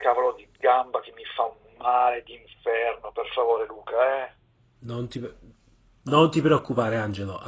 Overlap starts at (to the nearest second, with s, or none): none